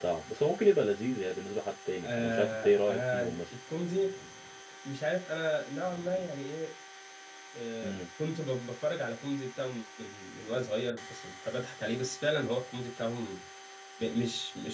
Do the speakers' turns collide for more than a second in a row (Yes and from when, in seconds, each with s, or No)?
Yes, from 2.0 s